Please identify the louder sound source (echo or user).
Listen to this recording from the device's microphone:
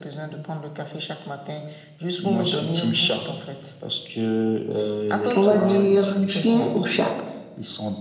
user